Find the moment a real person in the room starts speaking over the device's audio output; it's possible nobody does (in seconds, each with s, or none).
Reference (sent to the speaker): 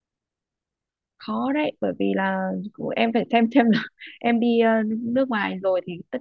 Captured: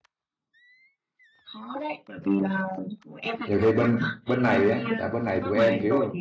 3.5 s